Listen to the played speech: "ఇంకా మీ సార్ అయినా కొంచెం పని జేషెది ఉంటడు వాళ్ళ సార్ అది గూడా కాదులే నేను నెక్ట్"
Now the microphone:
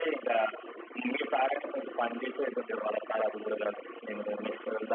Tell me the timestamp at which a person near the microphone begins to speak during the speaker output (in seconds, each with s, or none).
none